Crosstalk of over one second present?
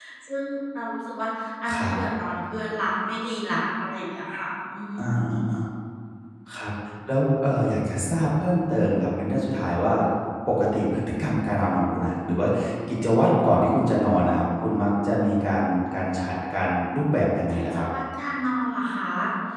No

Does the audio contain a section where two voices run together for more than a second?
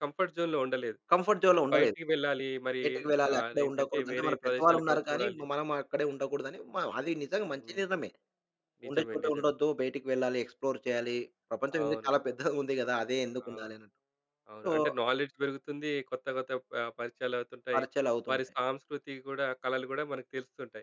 Yes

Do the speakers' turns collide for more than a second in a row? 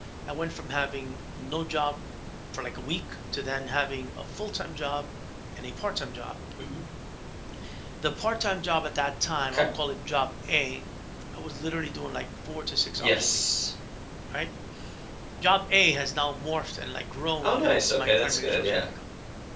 Yes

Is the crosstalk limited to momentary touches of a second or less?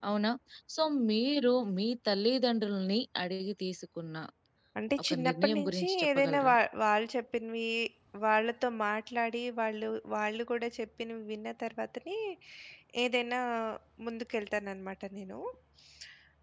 No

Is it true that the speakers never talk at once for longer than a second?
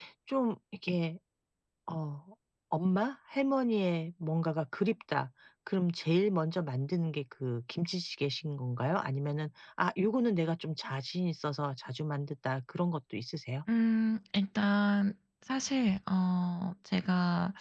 Yes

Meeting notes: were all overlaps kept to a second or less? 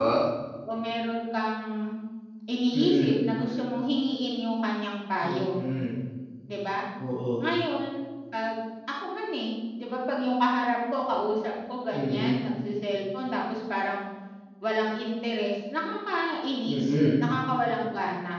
Yes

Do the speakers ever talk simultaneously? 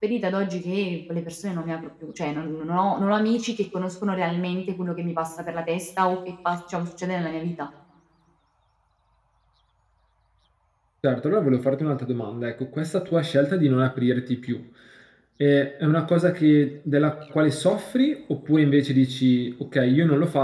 No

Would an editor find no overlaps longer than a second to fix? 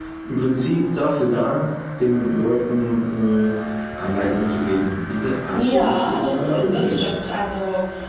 No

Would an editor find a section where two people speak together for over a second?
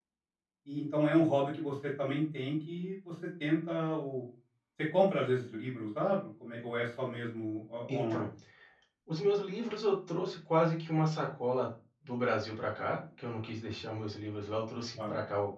No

